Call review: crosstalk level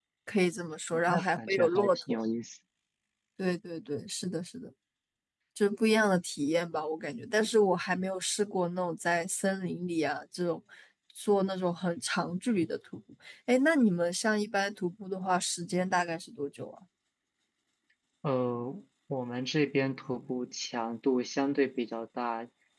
present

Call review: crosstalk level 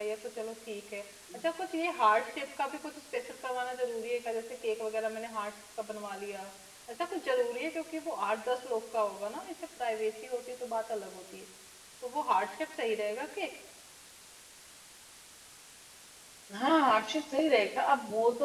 none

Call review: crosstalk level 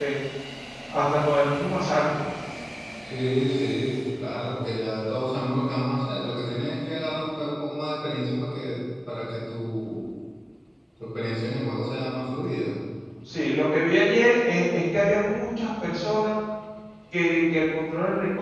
none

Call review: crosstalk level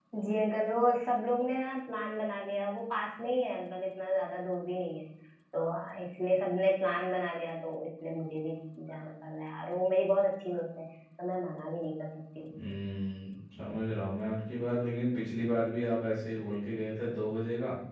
none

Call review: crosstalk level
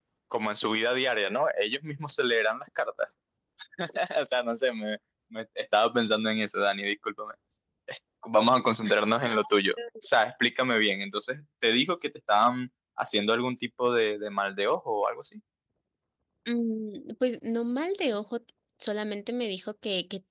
none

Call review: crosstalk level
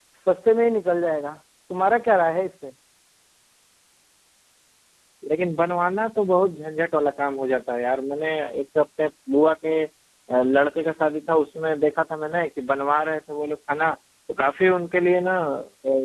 none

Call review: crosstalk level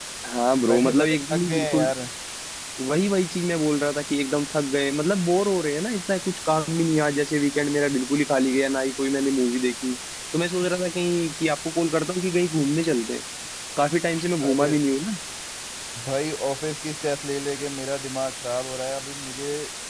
present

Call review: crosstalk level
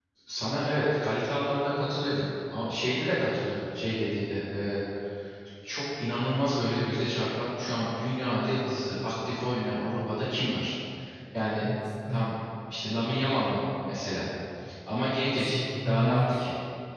present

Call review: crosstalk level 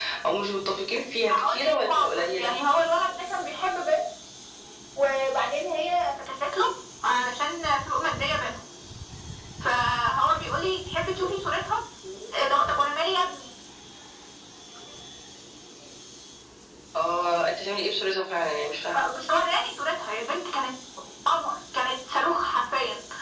present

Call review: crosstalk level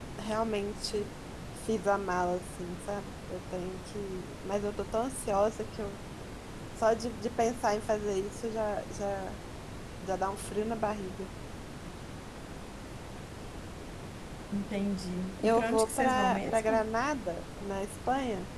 present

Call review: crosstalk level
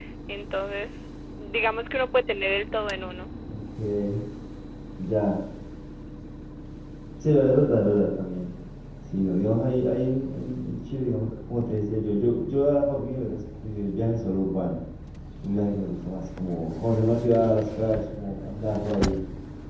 none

